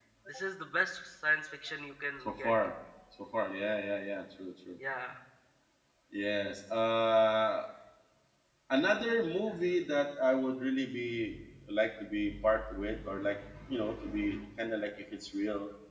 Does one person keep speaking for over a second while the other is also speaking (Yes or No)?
No